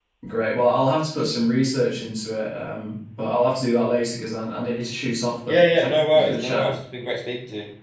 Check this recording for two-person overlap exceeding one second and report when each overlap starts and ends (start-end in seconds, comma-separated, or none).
5.5-6.7